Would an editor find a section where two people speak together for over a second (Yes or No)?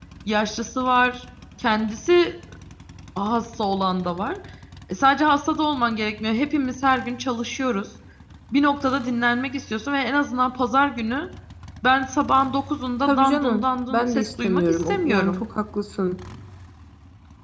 Yes